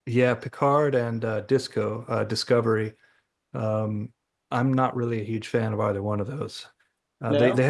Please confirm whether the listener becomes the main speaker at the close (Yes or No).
No